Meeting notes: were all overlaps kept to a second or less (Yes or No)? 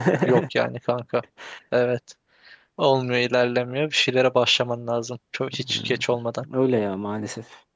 Yes